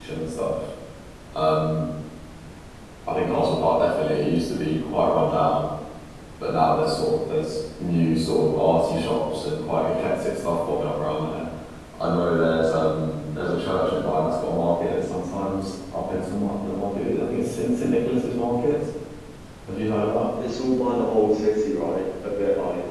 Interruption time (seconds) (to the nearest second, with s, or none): none